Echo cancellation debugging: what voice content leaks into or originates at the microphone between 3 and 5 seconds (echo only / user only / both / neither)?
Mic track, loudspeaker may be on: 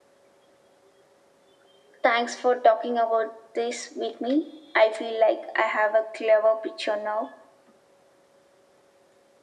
echo only